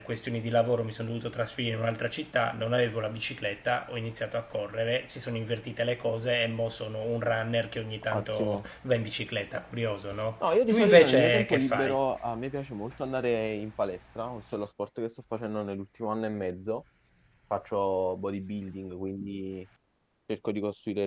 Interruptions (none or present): present